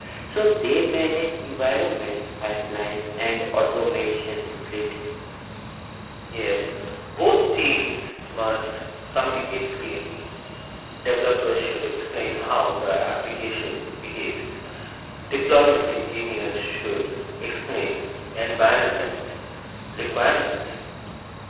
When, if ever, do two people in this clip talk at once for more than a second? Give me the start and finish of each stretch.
none

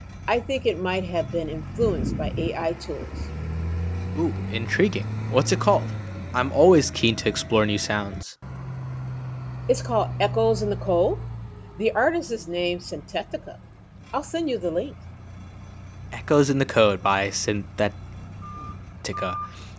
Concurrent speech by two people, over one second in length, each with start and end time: none

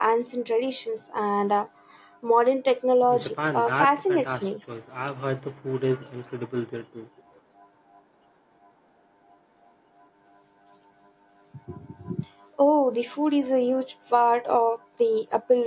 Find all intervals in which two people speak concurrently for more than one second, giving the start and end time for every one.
3.1-4.5

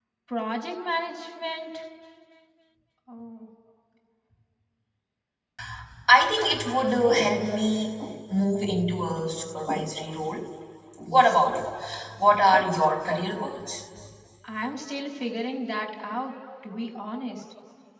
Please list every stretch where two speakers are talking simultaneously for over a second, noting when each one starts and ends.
none

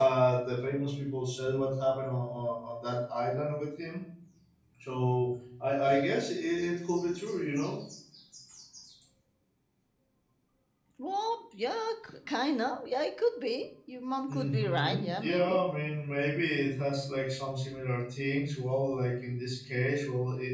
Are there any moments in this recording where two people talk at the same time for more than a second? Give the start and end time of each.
14.3-15.6

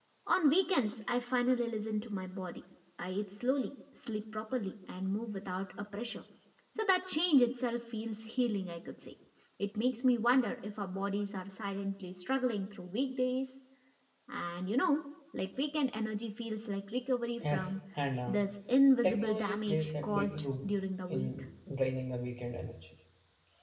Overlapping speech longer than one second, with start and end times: 19.0-20.7

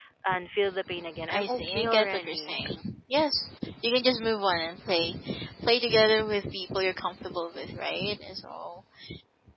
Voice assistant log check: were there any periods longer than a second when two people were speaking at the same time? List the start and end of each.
1.3-2.6

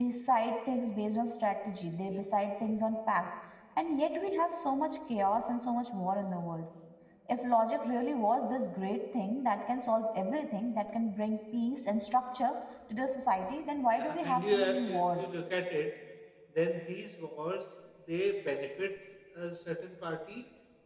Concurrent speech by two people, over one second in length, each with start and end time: 13.9-15.3

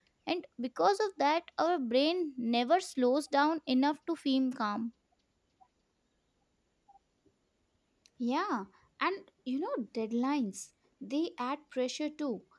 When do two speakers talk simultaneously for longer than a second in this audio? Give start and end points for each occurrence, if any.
none

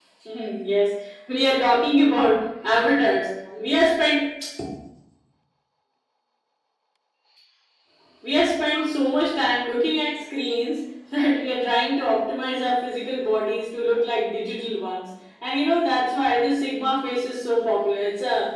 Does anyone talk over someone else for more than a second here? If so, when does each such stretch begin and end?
none

